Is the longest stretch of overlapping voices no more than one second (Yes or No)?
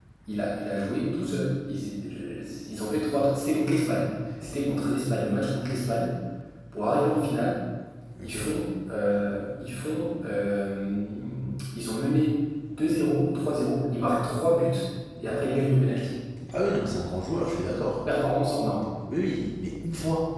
Yes